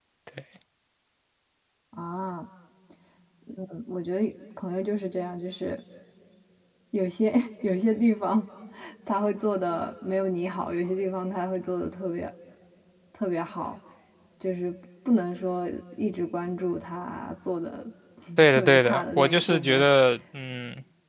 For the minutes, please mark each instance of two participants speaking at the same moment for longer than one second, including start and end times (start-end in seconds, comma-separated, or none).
18.5-19.9